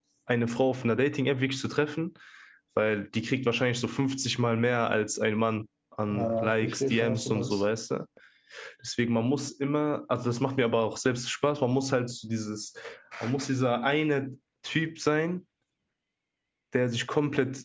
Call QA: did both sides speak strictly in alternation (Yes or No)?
No